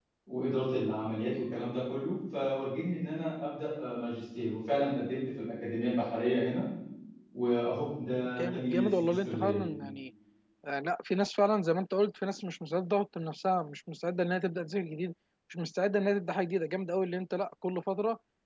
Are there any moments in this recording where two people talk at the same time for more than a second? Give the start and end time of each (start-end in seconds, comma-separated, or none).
8.4-9.6